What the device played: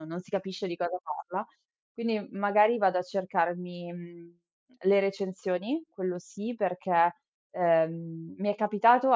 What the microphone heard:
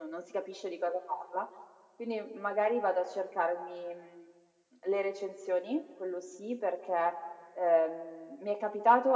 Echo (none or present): present